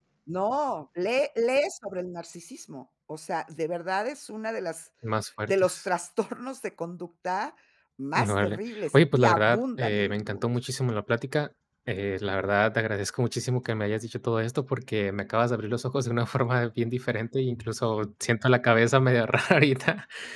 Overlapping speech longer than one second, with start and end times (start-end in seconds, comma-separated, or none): 8.2-10.5